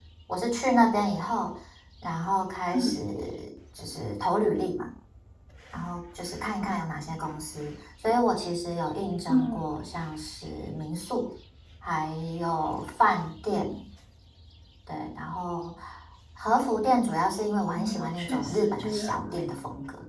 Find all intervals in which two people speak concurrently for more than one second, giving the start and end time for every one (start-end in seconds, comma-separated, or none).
17.7-19.4